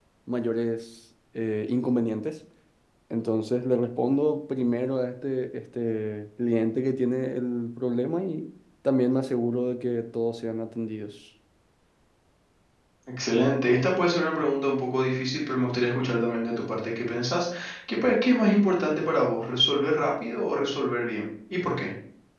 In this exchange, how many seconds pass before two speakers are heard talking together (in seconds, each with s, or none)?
none